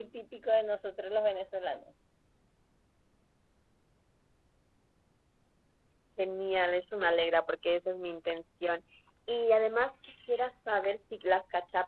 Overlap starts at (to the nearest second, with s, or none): none